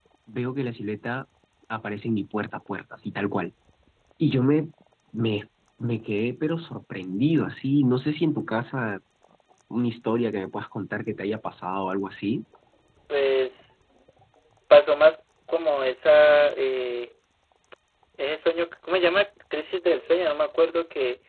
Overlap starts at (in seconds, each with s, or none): none